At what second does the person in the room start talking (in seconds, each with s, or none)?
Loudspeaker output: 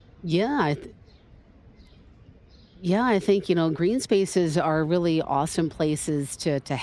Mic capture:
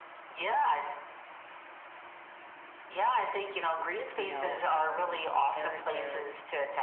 4.2 s